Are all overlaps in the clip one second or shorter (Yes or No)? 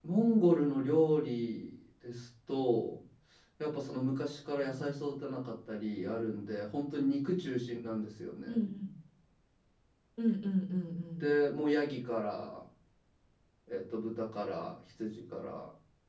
Yes